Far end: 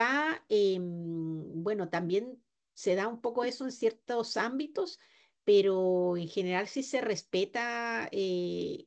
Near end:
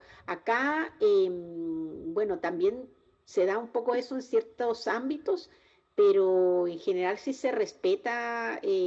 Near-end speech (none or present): none